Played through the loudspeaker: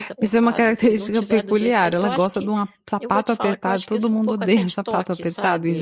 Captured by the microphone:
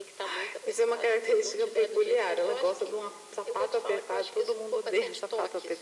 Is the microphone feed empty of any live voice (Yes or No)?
Yes